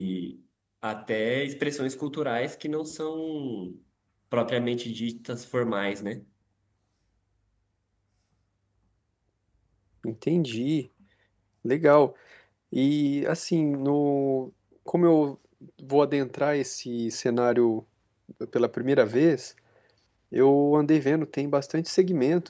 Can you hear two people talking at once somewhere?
No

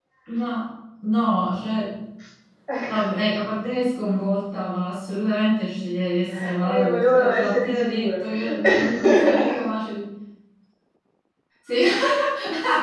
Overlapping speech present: Yes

